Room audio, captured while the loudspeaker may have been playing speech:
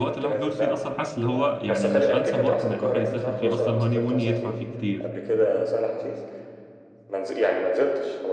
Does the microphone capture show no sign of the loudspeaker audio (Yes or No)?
No